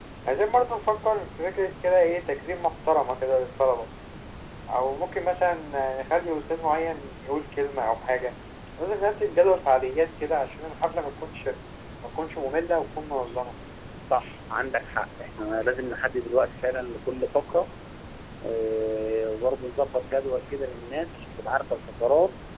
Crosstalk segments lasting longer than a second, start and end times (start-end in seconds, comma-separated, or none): none